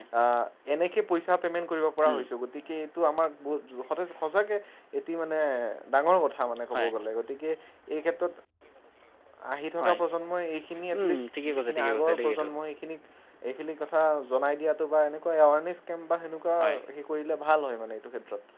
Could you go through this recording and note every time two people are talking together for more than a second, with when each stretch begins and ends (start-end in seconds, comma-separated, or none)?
11.0-12.5